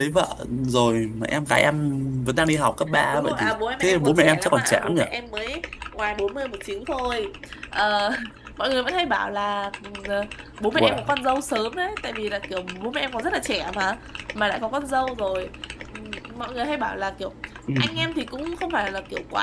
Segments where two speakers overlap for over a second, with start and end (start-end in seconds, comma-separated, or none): 3.1-5.0